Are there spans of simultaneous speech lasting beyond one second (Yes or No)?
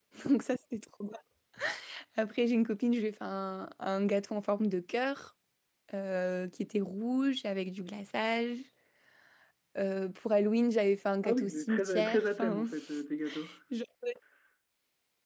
Yes